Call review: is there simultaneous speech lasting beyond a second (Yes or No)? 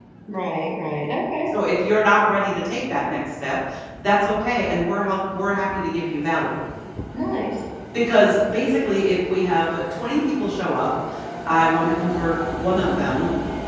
No